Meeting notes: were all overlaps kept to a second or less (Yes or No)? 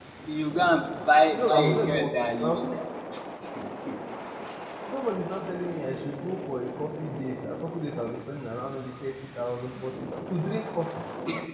No